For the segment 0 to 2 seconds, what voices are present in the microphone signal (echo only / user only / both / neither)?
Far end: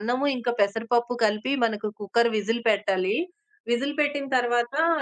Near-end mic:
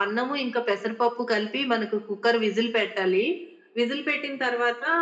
echo only